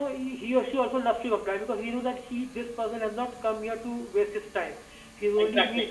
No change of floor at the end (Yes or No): Yes